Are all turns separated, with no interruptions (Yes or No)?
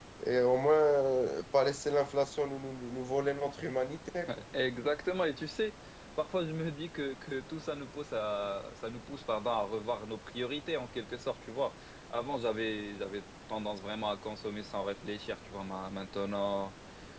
Yes